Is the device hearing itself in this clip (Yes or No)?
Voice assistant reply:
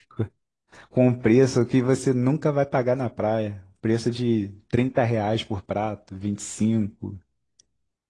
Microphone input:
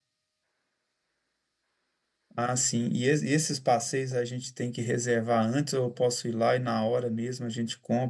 No